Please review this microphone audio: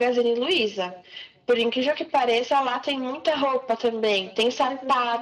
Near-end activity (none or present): present